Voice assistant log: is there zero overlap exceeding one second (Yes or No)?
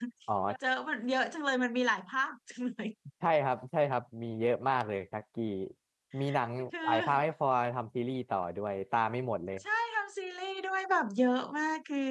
Yes